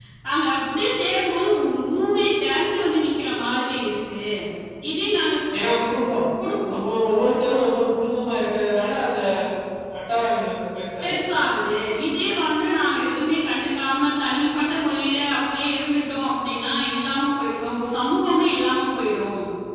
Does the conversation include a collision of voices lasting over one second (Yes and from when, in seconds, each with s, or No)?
No